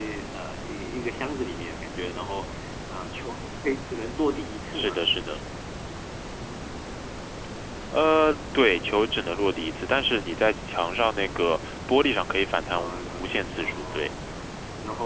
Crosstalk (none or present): present